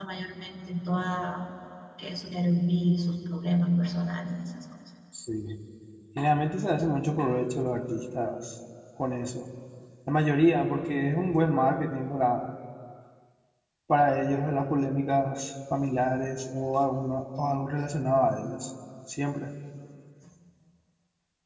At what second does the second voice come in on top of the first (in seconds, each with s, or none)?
none